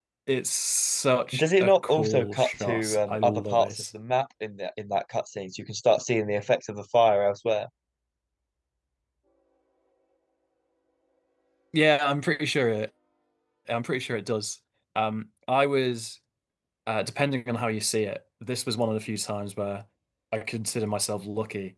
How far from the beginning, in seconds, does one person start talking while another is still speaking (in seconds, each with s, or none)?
1.3 s